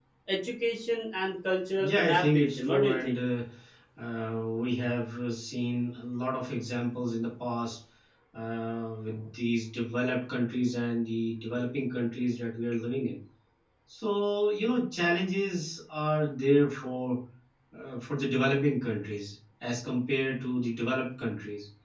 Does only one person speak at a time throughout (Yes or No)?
No